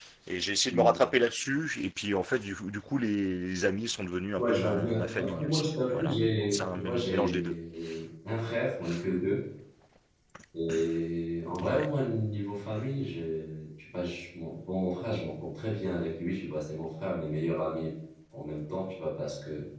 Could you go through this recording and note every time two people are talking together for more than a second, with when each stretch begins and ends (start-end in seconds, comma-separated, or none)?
4.4-7.5